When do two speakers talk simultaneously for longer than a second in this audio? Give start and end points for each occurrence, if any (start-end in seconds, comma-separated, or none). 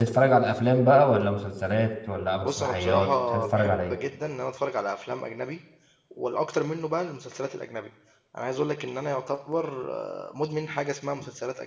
2.4-4.0